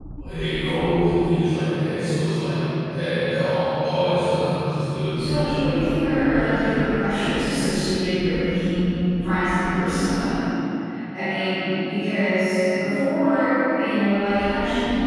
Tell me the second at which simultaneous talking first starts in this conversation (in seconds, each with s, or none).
5.2 s